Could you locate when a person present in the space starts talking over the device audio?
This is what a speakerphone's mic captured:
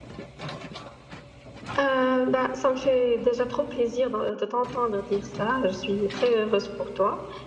none

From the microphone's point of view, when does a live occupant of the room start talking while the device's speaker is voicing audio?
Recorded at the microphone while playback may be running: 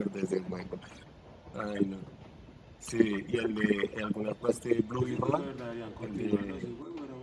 5.0 s

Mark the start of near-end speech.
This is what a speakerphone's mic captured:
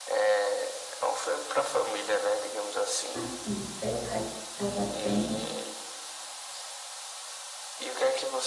3.1 s

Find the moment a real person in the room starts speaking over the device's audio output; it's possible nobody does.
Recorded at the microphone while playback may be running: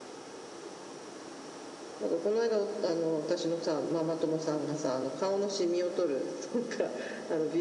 none

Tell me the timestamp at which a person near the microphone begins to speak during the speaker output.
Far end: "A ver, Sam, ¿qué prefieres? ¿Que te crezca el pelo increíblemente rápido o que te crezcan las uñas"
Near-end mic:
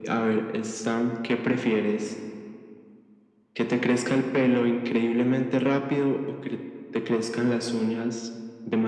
none

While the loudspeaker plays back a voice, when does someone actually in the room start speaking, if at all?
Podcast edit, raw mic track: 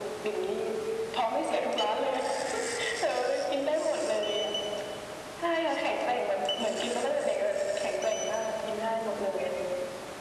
none

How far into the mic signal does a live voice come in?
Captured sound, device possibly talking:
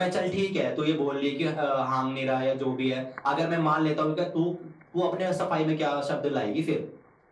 none

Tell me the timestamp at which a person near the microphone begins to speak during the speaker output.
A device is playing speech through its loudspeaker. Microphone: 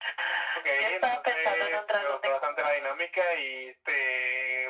none

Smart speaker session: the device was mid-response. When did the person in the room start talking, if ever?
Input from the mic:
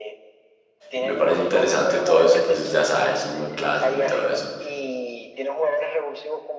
0.9 s

